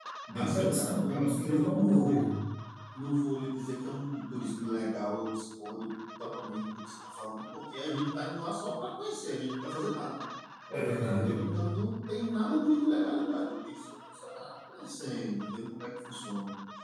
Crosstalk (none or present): present